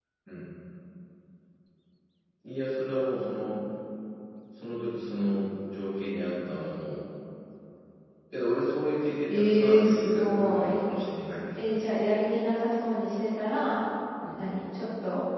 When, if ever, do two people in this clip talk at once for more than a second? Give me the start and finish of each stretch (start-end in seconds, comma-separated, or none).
9.3-10.8